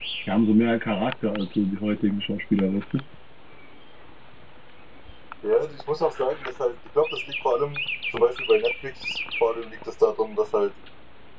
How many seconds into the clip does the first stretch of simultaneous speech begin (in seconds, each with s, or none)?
none